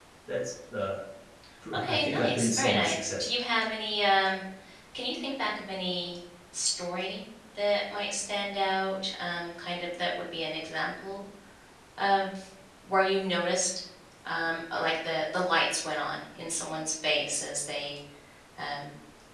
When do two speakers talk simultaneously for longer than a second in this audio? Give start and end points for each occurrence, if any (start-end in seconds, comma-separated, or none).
1.7-3.2